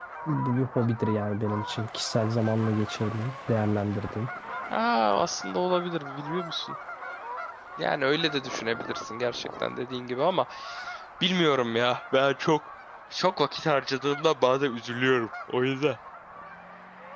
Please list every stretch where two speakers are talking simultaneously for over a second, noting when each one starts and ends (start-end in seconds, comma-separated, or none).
none